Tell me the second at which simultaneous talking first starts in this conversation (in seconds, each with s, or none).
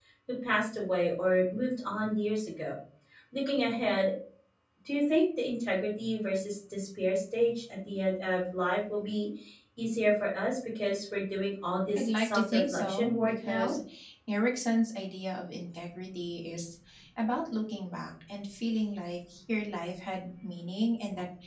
11.9 s